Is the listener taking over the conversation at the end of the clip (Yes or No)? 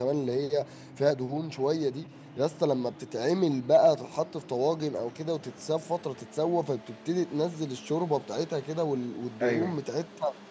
No